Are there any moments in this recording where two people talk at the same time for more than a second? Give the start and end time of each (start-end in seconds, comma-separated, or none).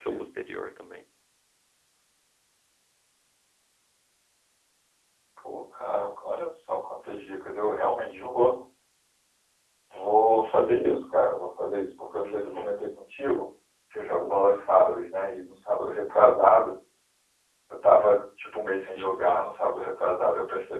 none